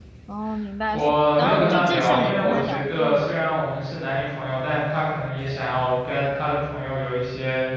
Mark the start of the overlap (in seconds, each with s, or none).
0.9 s